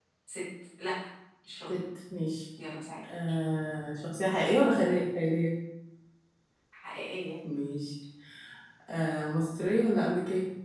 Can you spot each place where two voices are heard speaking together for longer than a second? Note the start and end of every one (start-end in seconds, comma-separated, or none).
none